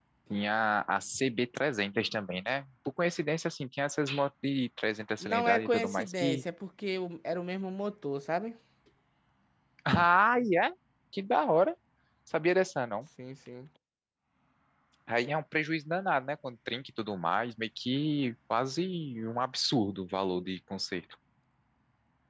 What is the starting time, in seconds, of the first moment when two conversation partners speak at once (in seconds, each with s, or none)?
5.2 s